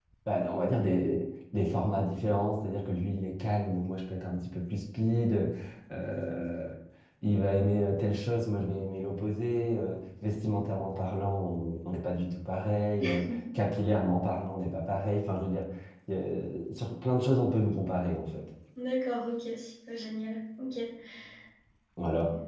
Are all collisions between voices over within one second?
Yes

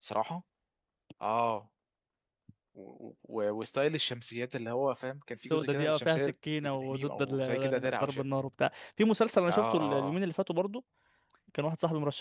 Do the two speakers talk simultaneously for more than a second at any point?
Yes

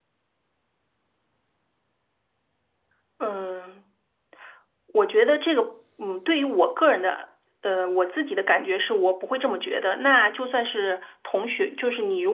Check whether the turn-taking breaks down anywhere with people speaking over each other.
No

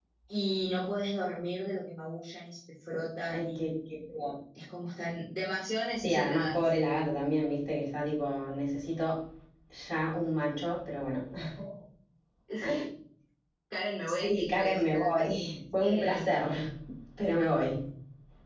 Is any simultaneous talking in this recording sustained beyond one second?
Yes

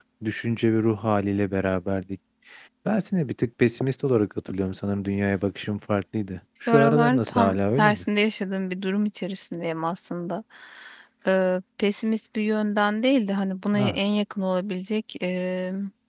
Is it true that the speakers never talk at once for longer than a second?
No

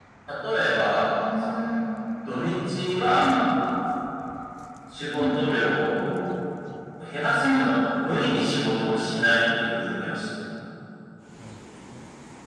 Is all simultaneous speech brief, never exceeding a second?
Yes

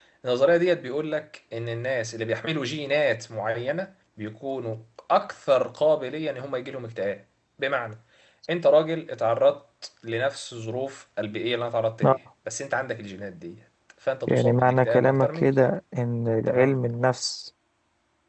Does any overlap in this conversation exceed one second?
Yes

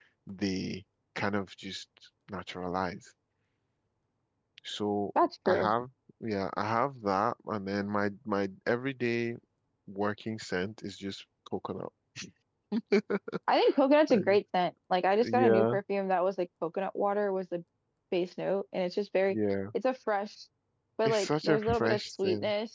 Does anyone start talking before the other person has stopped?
Yes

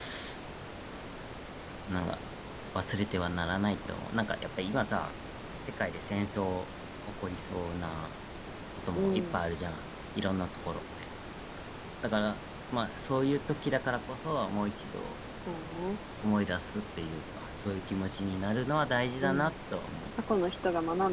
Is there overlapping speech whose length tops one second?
No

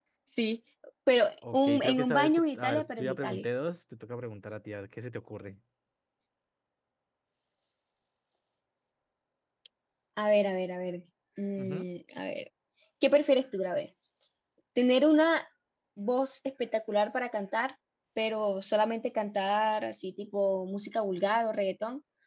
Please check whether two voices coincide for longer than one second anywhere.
Yes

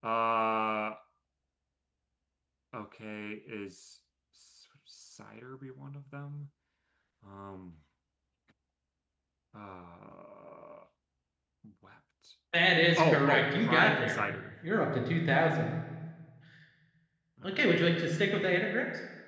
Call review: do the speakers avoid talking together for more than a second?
No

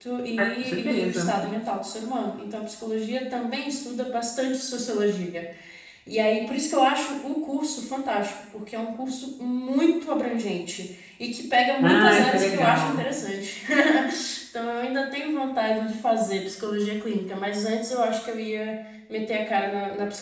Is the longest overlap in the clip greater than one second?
Yes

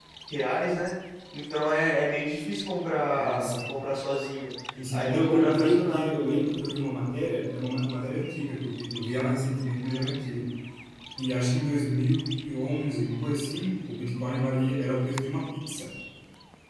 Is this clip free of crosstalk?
No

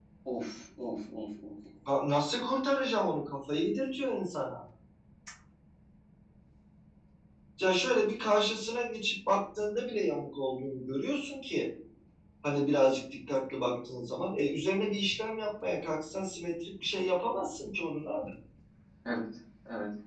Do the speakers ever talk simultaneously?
No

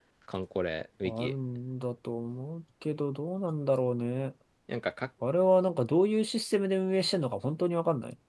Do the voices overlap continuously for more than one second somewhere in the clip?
No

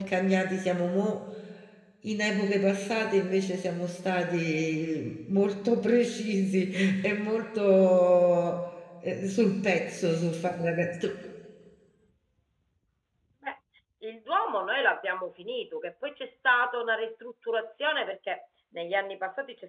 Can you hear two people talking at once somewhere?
No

